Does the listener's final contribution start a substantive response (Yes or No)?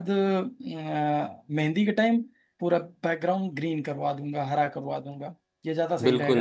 Yes